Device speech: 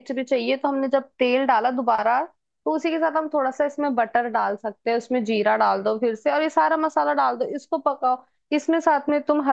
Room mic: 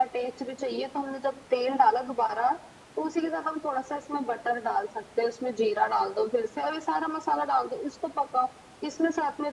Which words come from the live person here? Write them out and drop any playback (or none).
none